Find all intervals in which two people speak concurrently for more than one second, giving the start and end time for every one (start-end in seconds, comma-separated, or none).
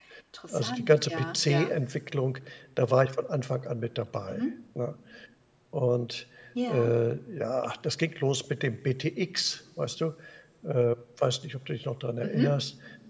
0.5-1.7